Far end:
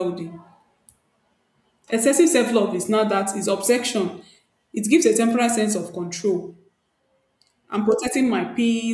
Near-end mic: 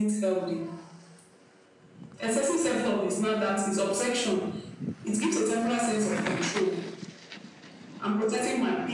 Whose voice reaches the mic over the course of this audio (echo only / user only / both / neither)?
echo only